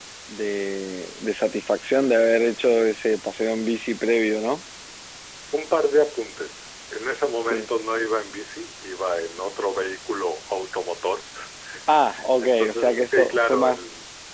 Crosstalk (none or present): present